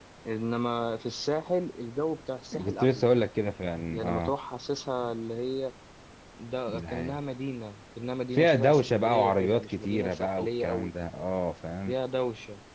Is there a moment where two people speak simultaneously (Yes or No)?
Yes